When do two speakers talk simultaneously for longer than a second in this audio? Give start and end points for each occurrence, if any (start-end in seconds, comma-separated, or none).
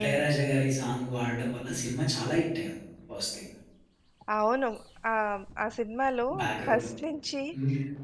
none